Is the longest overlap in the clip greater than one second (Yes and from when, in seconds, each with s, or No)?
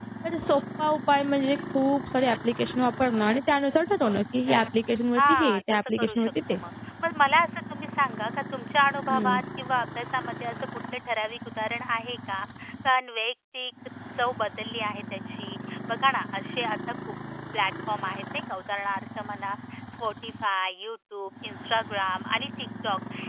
Yes, from 5.2 s